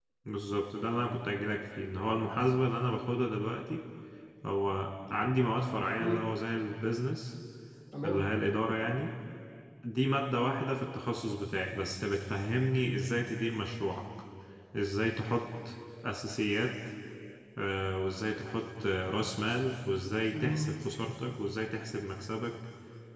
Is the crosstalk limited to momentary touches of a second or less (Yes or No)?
Yes